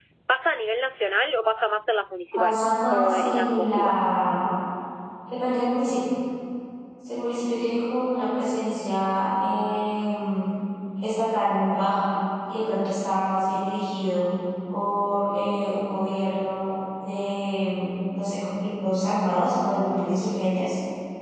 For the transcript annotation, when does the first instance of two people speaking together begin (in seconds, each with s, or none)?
2.4 s